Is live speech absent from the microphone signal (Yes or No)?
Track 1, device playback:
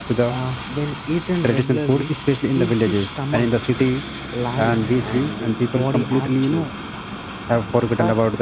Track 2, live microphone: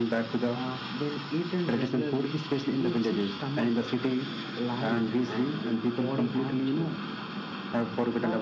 Yes